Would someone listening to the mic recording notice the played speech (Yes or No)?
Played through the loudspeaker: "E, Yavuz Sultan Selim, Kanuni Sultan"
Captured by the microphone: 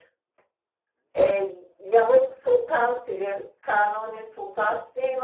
Yes